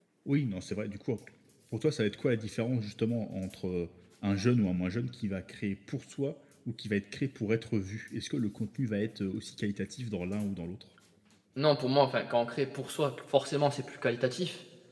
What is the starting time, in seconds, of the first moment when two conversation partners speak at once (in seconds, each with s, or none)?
none